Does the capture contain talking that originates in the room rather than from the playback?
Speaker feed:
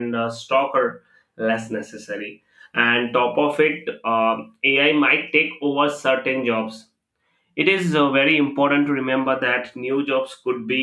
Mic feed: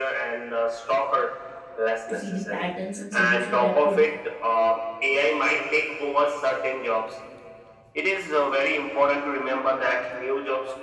Yes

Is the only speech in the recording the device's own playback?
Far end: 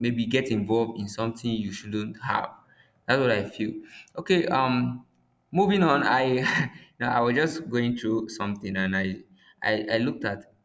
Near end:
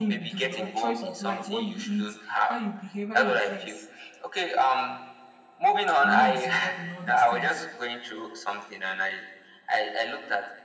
No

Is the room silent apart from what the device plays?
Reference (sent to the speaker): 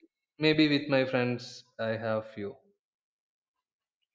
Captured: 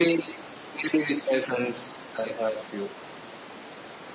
Yes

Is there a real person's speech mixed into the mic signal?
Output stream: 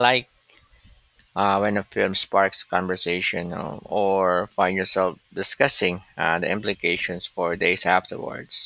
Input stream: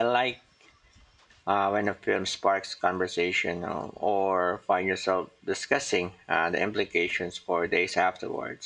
No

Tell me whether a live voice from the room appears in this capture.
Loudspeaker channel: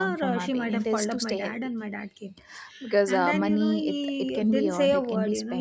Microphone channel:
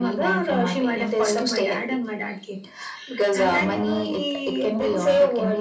No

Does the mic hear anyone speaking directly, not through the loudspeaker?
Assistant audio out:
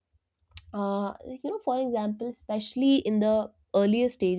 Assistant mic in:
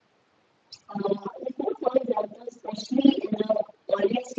No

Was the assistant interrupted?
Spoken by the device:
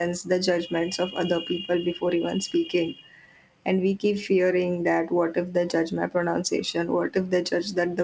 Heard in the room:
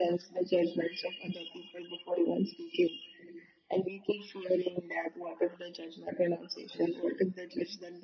No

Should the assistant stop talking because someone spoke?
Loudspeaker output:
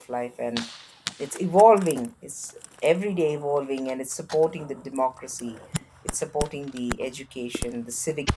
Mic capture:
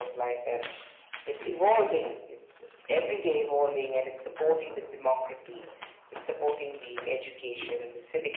No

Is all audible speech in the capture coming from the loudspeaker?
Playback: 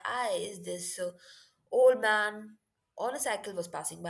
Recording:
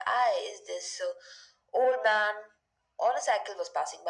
Yes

